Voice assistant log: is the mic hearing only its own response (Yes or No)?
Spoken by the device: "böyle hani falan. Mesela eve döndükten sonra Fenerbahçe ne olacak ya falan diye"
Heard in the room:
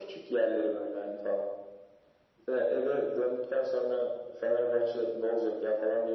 Yes